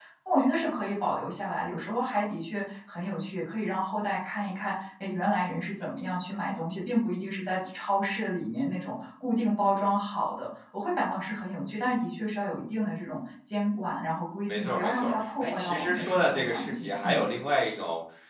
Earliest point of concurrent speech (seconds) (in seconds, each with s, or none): 14.5 s